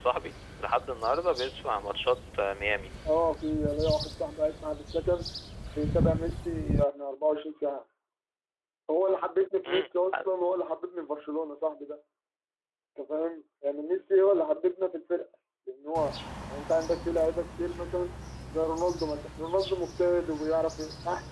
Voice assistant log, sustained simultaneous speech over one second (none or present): none